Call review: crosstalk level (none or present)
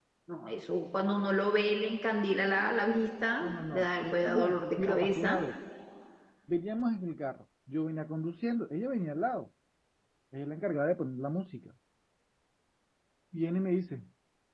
present